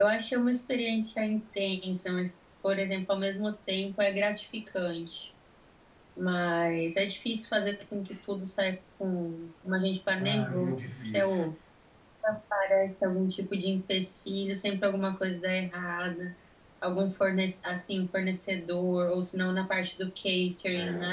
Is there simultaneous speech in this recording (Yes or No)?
Yes